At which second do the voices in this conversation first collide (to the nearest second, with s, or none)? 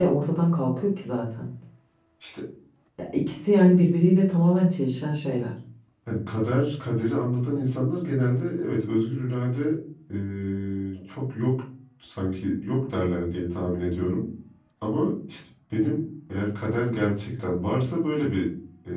none